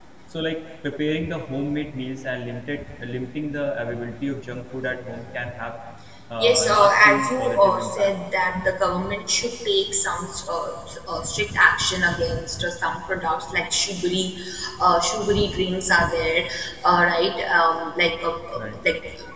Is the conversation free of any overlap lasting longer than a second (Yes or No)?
No